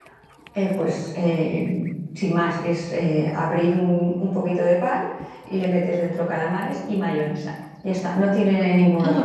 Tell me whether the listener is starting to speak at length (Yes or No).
Yes